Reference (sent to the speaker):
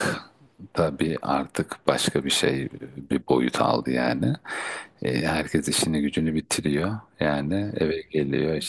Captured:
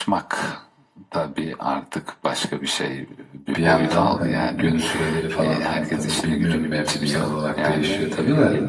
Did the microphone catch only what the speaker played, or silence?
No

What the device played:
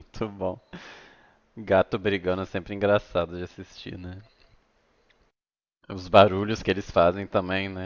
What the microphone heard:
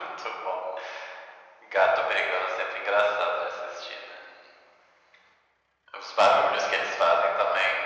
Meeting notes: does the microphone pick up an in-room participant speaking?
No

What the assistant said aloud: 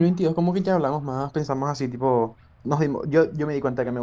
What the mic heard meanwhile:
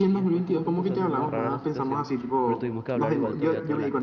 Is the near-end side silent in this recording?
No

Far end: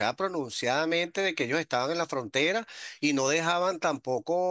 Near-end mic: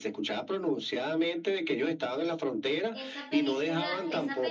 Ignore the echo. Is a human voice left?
Yes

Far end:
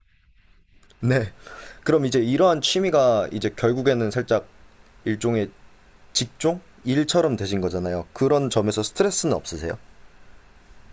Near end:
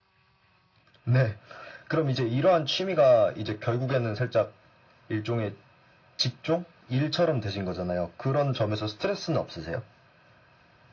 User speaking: No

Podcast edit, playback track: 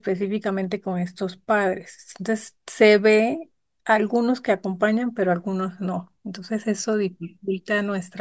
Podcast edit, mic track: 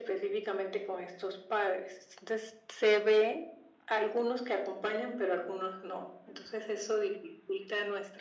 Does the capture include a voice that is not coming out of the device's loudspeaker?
No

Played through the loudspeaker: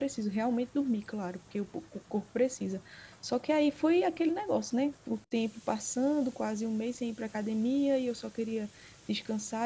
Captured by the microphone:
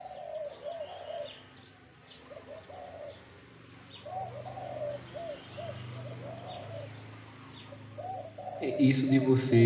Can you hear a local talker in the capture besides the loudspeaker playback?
Yes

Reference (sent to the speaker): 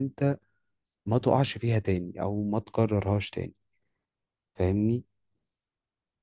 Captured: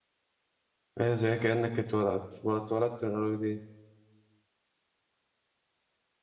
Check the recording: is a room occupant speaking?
Yes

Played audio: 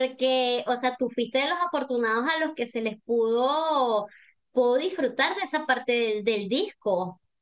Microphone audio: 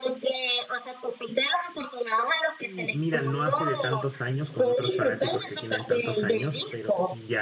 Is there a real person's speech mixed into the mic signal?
Yes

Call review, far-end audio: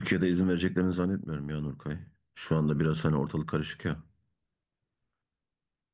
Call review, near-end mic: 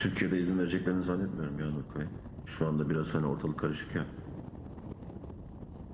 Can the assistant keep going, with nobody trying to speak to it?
Yes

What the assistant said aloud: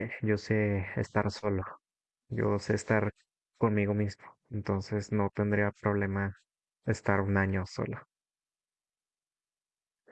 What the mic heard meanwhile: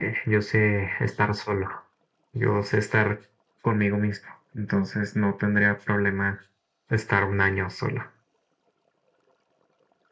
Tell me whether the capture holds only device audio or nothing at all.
Yes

